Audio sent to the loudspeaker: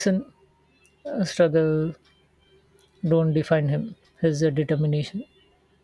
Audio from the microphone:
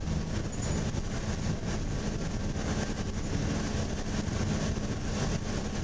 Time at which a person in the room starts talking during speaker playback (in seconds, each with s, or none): none